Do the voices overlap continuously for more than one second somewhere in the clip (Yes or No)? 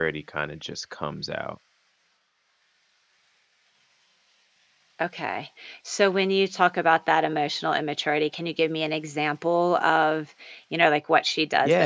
No